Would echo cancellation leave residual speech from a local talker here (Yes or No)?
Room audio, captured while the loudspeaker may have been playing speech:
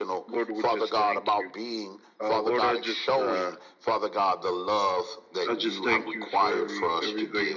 No